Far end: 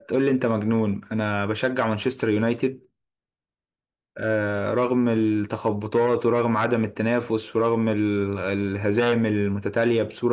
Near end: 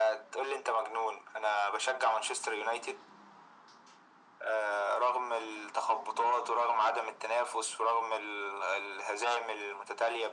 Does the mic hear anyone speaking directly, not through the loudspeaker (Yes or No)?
No